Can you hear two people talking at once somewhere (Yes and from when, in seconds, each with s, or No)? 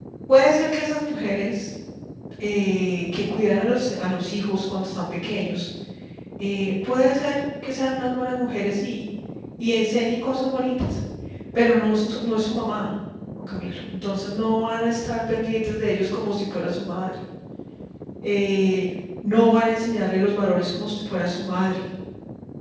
No